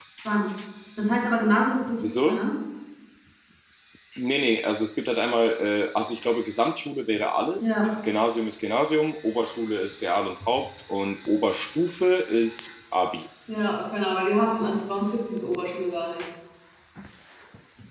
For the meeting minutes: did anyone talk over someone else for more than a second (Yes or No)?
No